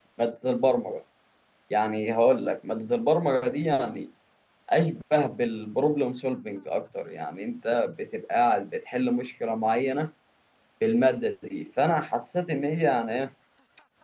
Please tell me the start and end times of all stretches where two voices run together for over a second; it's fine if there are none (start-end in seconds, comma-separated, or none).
none